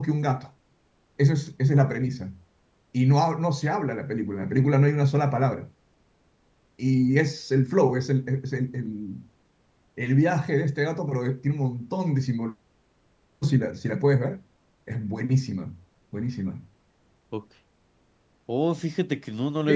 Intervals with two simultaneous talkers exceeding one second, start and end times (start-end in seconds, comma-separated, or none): none